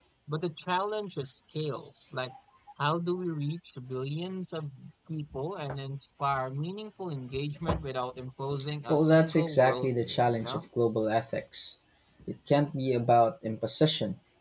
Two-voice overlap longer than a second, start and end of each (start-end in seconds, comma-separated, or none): 8.9-10.6